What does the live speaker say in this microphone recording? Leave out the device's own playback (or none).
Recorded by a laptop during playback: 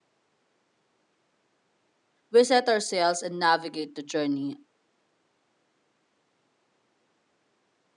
we set our sails and navigate the journey.